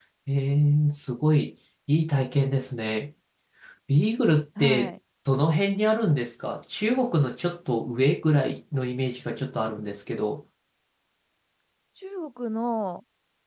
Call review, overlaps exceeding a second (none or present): none